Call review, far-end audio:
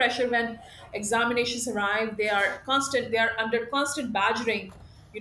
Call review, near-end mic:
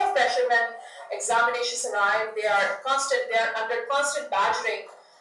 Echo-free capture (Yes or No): No